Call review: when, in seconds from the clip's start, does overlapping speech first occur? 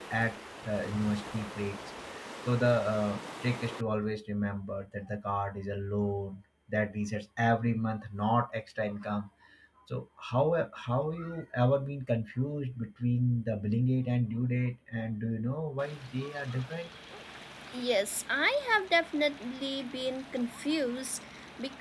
none

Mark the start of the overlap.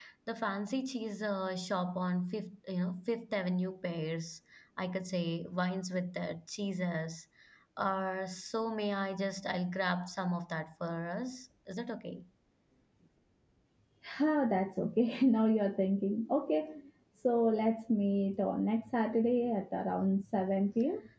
none

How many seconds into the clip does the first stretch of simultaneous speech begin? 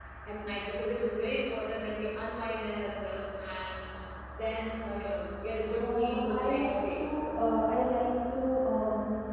5.8 s

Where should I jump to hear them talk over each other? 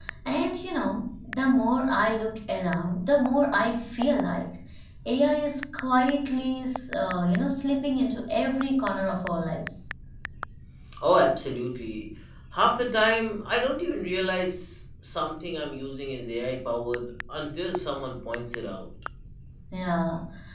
none

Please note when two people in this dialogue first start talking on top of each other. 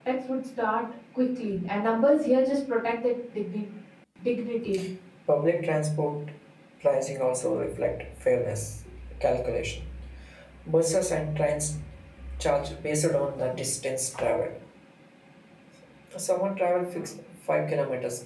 none

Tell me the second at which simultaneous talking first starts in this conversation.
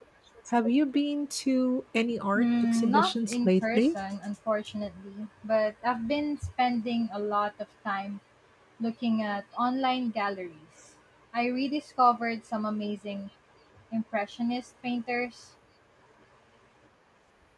2.4 s

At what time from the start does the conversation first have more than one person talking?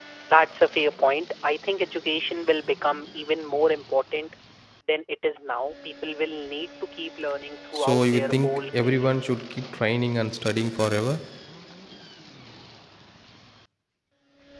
7.7 s

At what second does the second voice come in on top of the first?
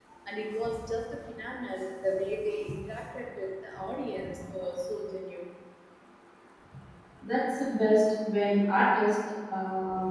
none

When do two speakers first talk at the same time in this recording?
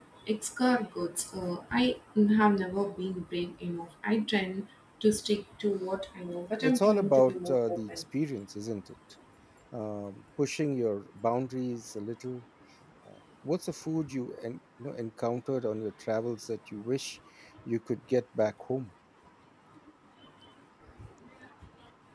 6.6 s

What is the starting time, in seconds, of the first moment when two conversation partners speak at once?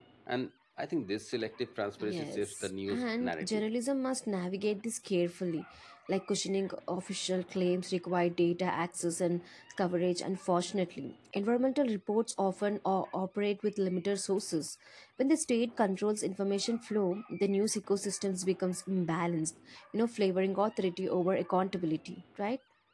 2.0 s

